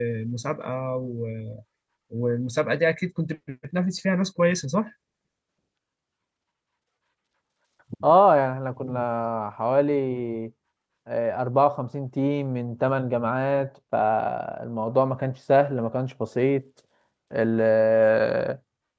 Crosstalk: none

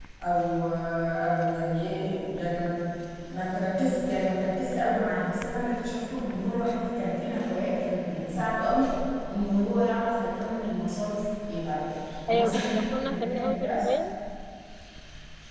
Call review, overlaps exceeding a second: present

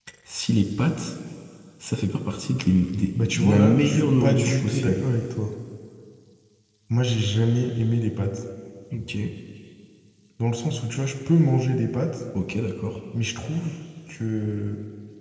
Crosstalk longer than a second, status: present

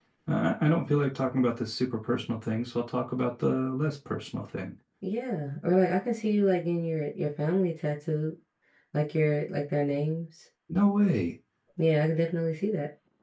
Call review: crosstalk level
none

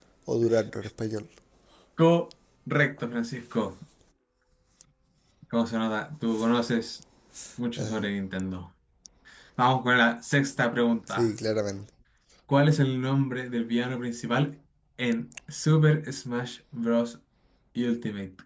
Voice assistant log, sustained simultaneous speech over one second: none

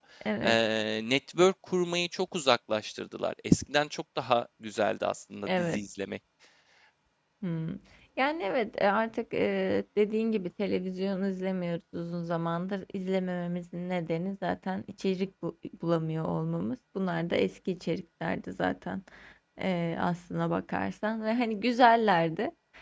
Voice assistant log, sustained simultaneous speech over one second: none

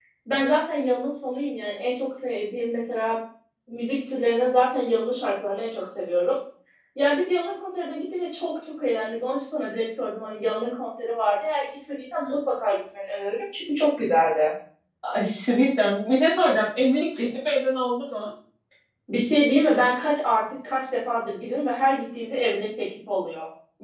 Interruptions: none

